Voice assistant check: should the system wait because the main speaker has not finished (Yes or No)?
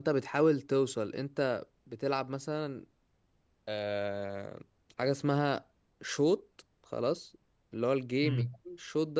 Yes